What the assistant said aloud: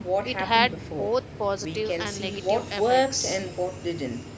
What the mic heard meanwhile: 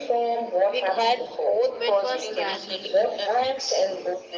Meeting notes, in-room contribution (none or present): present